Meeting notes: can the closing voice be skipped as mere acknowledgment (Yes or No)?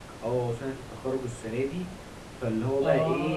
Yes